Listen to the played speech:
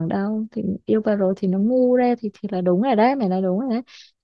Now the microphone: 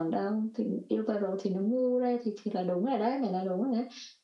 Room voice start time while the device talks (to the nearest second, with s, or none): none